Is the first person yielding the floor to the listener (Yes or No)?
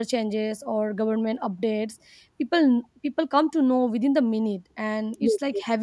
No